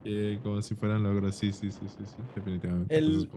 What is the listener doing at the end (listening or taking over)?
taking over